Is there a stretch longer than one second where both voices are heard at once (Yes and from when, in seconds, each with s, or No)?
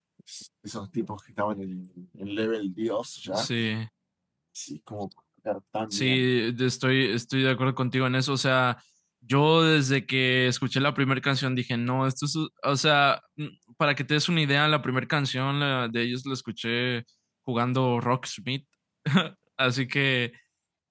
No